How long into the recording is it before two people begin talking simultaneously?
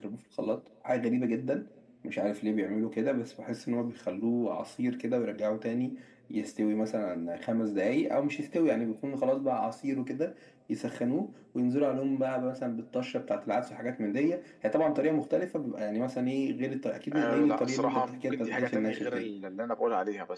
17 s

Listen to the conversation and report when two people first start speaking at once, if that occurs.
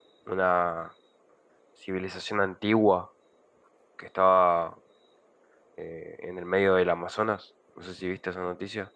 none

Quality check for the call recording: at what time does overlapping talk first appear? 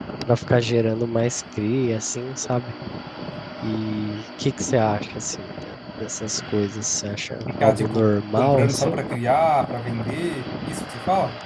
7 s

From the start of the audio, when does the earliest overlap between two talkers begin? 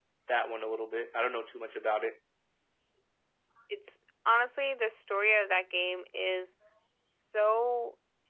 none

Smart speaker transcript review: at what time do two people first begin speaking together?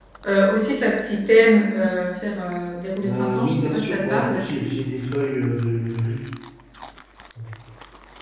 3 s

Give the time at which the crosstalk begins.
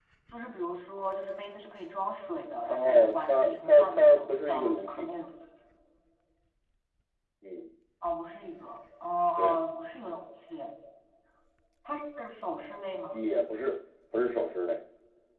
3 s

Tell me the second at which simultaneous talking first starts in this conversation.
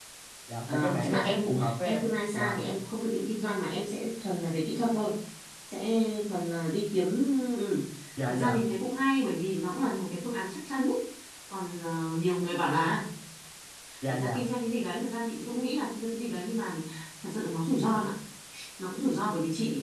1 s

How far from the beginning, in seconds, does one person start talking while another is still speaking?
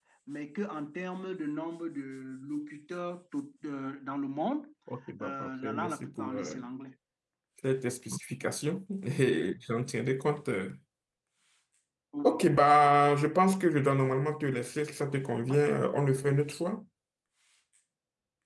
5 s

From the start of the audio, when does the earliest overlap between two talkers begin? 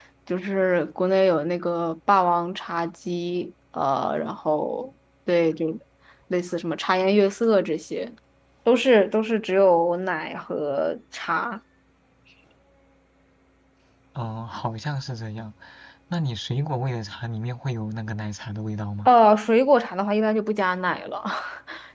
none

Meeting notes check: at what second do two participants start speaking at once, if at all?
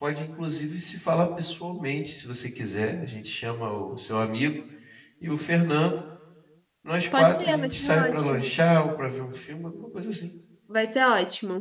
7 s

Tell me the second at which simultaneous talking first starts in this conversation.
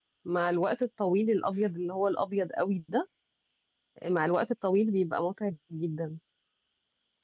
none

